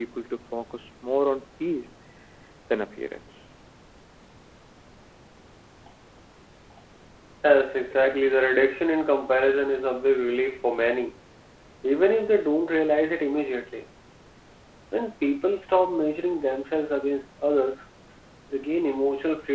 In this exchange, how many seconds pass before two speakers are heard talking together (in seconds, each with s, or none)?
none